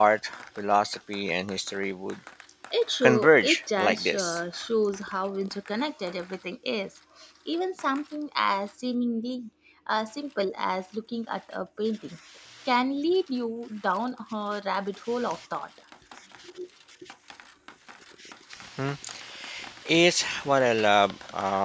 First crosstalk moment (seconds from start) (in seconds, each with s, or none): 3.0 s